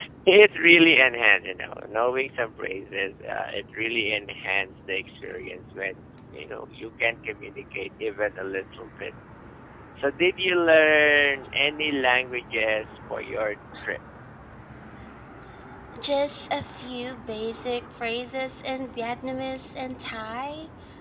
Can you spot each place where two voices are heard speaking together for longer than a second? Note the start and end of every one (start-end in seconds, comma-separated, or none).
none